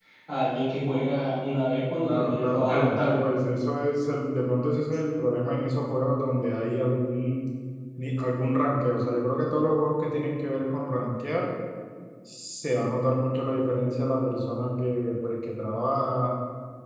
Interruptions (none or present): present